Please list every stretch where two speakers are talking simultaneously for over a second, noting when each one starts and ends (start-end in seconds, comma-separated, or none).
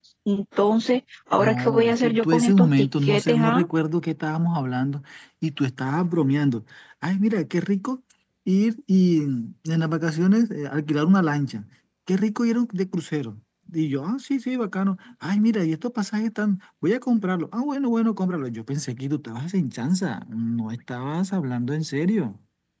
1.4-3.6